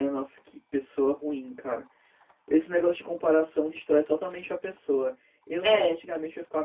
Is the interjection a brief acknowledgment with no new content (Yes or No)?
Yes